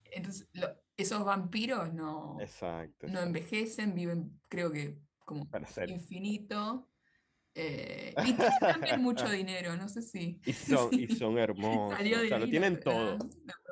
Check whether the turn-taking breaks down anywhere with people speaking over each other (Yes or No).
Yes